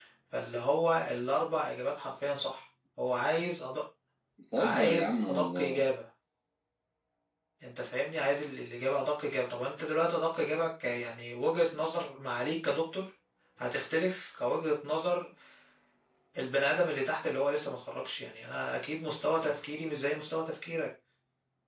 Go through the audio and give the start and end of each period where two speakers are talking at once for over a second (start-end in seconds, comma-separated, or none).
4.6-5.9